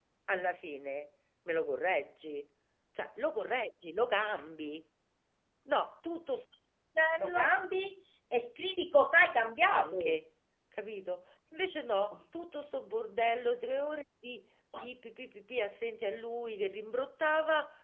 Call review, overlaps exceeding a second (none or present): none